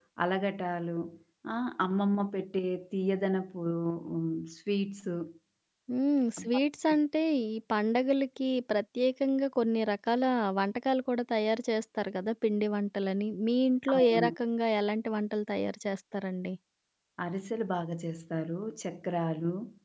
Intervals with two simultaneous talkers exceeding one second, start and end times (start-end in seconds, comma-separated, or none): none